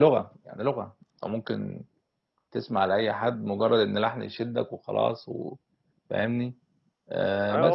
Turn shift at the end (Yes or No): Yes